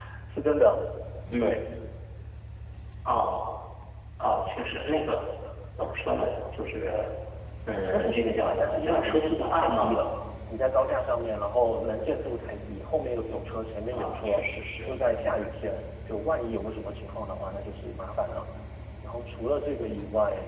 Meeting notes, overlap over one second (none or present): present